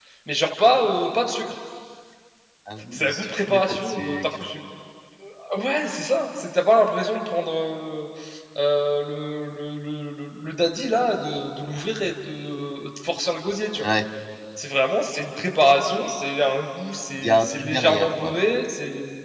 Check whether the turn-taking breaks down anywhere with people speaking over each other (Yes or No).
Yes